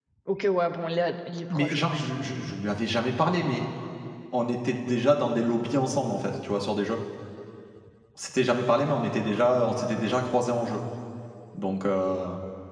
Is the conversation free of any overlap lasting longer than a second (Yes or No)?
Yes